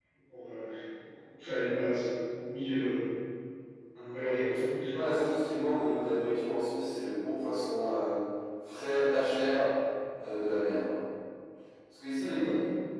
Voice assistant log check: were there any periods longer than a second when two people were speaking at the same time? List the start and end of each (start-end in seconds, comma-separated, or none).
none